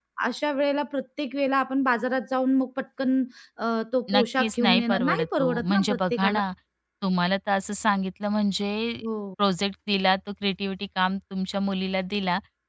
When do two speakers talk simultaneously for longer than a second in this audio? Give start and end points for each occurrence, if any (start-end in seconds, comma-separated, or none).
4.1-6.4